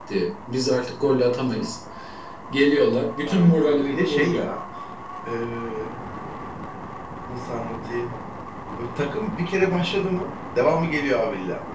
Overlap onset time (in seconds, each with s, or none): 3.3 s